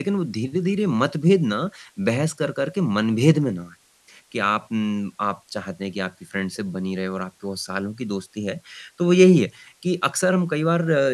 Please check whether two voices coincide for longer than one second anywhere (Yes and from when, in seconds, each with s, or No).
No